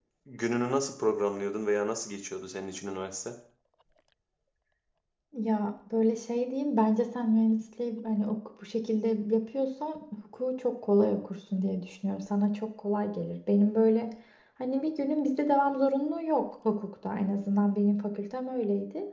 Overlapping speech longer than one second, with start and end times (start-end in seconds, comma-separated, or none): none